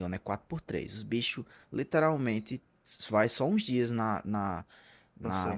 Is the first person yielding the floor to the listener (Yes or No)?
No